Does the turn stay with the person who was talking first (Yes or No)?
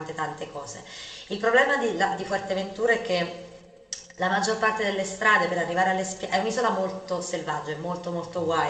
Yes